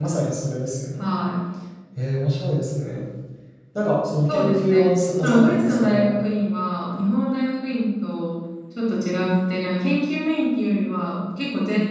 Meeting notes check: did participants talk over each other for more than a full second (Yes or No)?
Yes